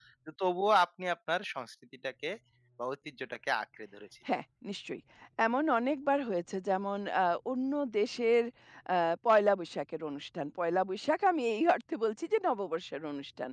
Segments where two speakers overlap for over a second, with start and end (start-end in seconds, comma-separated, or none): none